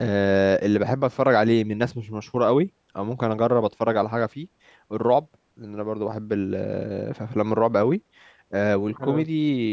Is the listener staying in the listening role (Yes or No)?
Yes